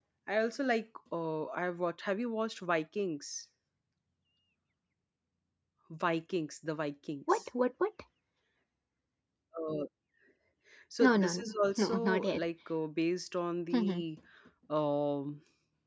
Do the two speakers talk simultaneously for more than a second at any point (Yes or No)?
Yes